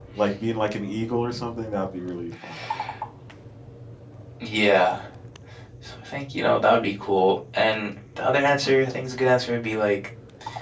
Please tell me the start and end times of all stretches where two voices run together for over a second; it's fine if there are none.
none

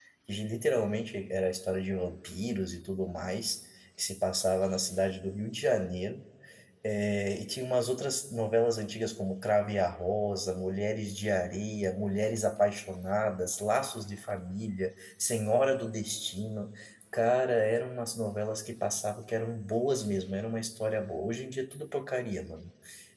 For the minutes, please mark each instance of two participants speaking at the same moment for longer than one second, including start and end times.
none

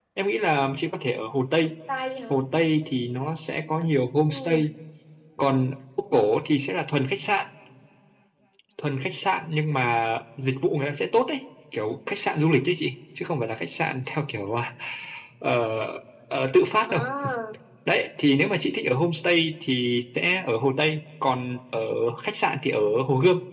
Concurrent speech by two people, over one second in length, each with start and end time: none

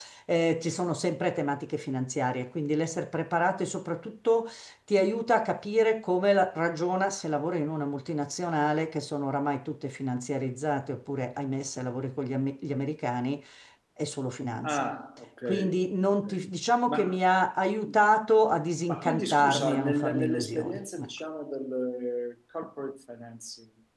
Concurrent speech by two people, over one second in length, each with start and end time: 18.9-21.1

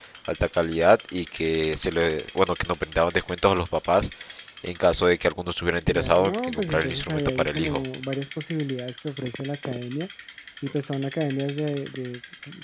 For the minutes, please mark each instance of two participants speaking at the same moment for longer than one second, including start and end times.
5.9-7.8

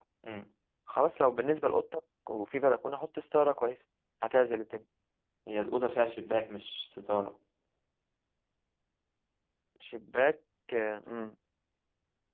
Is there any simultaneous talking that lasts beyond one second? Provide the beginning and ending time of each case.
none

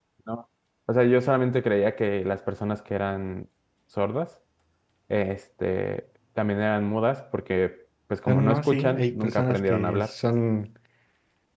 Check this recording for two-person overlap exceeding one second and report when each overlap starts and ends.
8.3-10.1

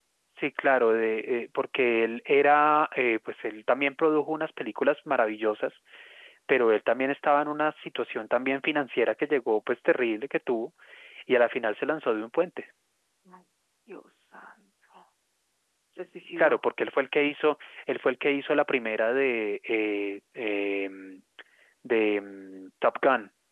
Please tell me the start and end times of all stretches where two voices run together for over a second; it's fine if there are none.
none

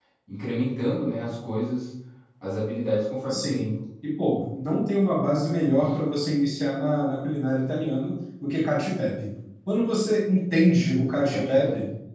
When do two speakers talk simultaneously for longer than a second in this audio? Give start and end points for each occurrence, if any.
none

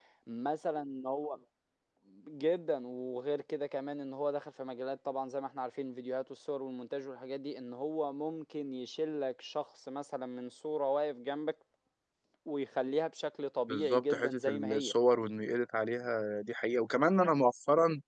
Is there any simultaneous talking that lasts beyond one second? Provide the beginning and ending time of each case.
13.7-14.9

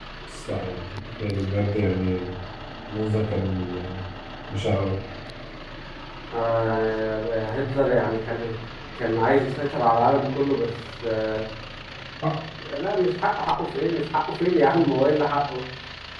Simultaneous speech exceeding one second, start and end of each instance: none

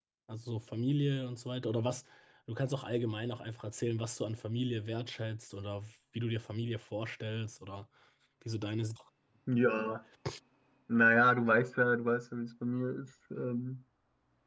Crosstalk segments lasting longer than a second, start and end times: none

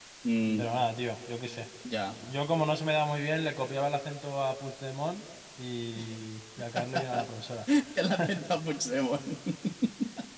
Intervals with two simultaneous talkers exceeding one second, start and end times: none

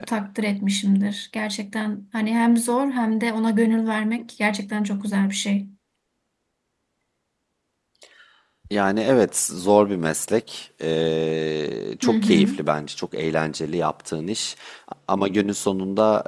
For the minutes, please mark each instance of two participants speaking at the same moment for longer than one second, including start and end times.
none

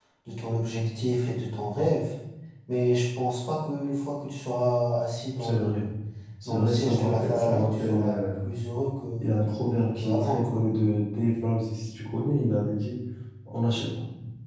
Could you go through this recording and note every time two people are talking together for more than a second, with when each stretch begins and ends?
6.5-8.5

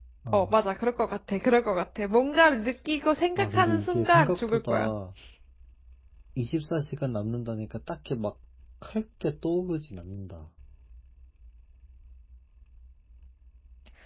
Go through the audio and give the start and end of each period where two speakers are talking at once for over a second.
3.4-4.9

